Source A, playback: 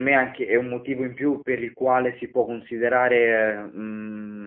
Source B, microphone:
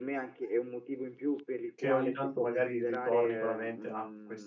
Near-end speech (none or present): present